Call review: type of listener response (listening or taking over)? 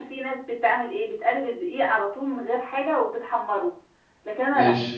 listening